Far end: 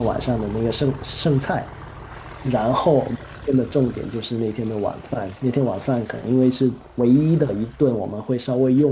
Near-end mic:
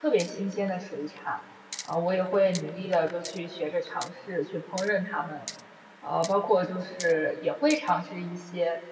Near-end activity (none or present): present